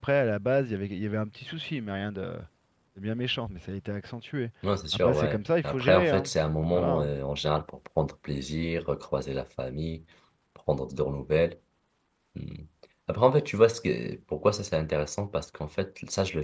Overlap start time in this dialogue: 5 s

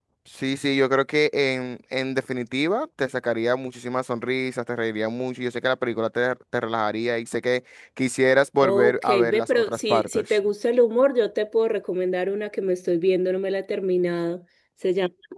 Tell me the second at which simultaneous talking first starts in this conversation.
9 s

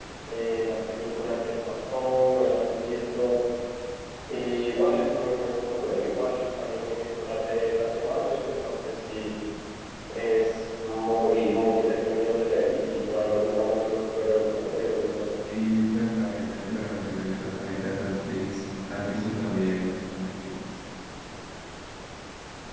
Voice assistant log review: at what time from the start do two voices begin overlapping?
none

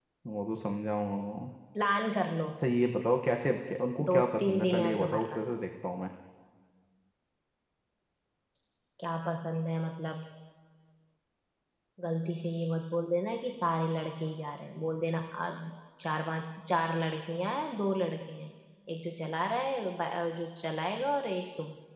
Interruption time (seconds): 4 s

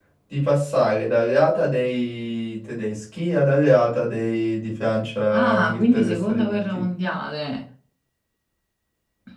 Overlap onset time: 5 s

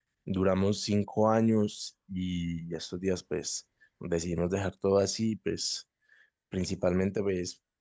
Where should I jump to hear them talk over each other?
none

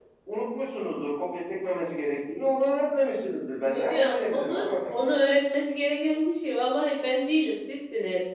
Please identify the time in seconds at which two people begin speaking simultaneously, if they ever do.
4 s

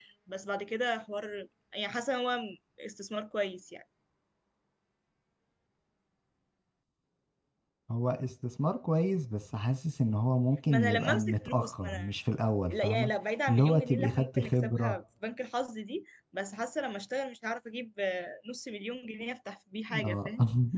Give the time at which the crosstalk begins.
11 s

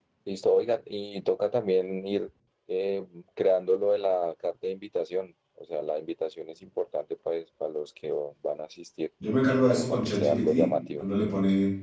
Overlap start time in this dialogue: 10 s

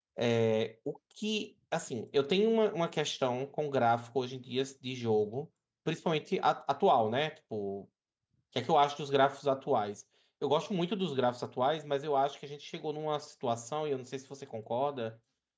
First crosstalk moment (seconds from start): none

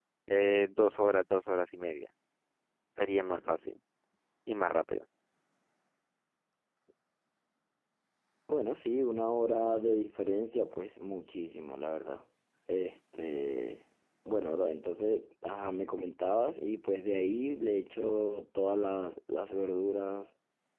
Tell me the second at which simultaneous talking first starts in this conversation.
none

